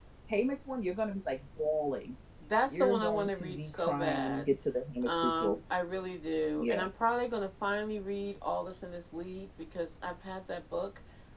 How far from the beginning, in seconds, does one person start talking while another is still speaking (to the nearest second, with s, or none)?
3 s